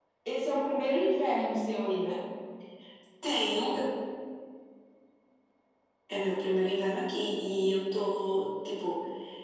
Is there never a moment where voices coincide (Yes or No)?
Yes